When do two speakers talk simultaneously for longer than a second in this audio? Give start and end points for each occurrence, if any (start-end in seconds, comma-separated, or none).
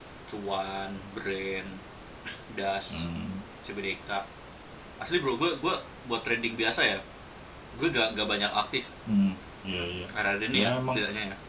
none